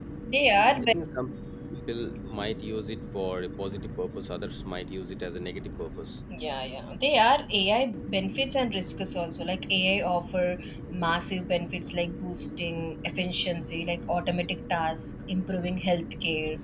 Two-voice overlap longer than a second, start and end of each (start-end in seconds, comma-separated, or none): none